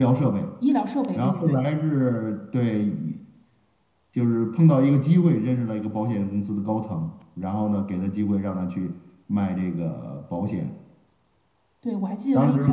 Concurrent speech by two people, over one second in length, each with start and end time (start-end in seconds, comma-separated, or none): none